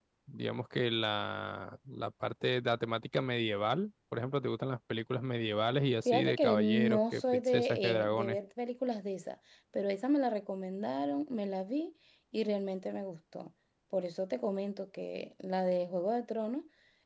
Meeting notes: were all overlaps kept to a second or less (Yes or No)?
No